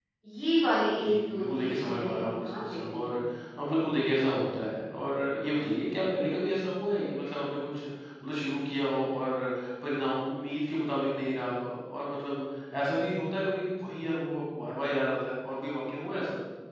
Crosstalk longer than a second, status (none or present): present